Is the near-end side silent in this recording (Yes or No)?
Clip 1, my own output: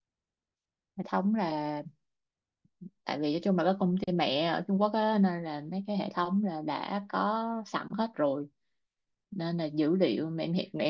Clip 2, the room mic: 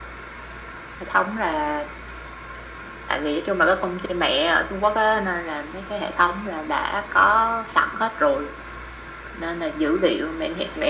Yes